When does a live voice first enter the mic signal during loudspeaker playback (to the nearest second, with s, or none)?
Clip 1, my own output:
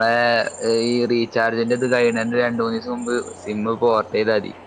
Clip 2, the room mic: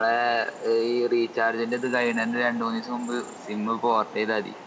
none